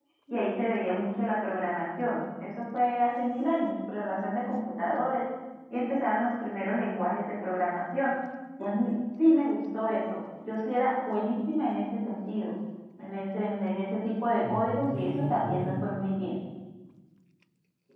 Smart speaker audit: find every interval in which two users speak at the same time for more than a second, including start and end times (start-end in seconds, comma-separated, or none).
14.5-15.8